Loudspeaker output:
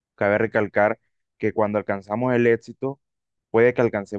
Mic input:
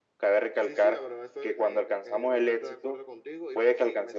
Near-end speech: present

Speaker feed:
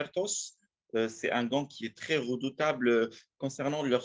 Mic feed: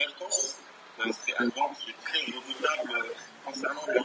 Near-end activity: none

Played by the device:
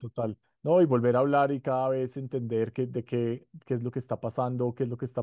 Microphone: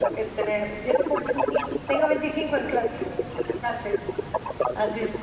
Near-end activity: present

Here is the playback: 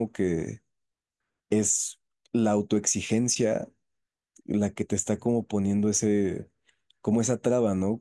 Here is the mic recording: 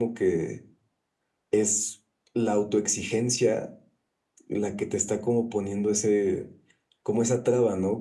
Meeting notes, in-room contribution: none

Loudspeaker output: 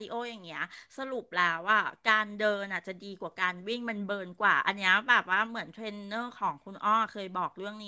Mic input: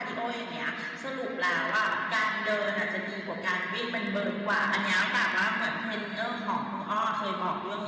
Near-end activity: none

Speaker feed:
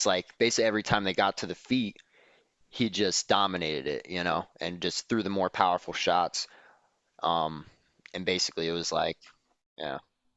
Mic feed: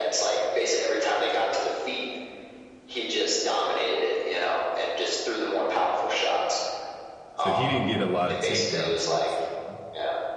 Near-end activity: present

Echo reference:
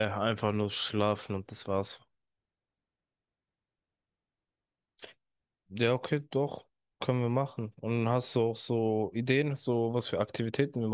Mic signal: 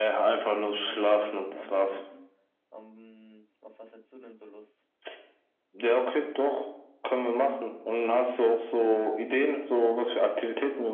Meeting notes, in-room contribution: present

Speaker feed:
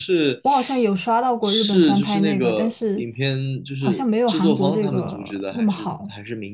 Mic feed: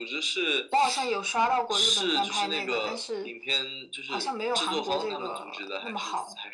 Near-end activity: none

